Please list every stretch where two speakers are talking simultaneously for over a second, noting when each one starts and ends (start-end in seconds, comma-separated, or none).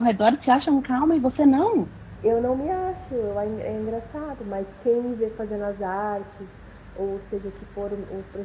none